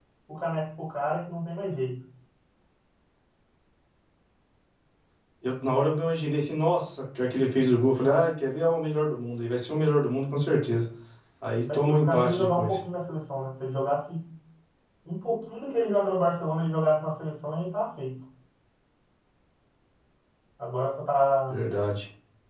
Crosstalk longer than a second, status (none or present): present